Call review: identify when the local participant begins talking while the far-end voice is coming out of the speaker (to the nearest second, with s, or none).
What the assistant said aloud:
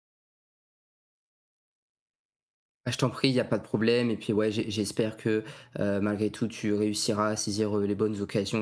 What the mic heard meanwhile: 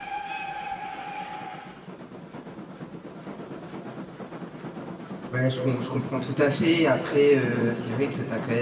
5 s